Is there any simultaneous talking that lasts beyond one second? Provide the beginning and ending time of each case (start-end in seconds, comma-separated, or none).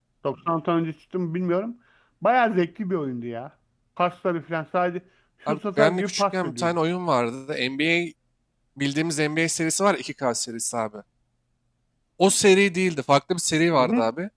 5.5-6.7